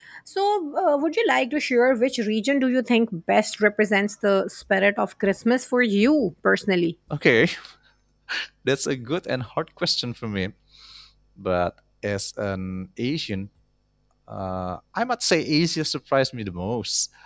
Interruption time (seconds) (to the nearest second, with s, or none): none